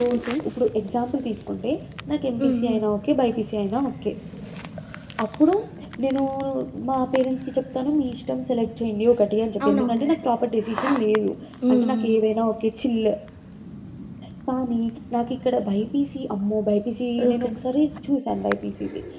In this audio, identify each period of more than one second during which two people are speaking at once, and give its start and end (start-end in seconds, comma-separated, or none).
none